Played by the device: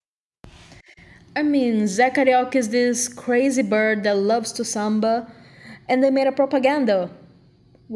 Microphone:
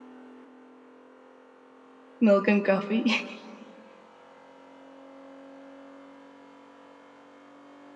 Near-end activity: present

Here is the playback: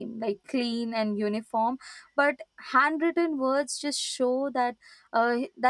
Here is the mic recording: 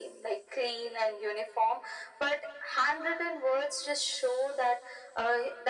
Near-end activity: none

